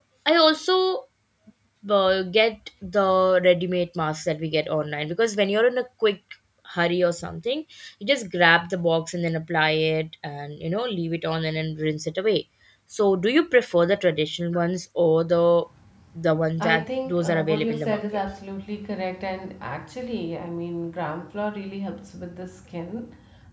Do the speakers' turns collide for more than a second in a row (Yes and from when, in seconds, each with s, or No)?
Yes, from 16.6 s